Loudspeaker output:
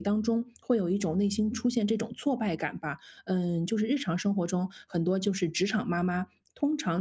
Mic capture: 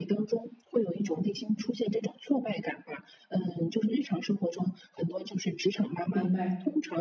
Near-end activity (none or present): present